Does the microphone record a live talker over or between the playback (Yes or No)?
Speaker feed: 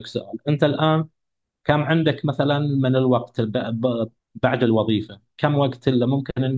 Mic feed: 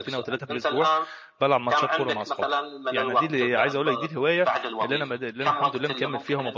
Yes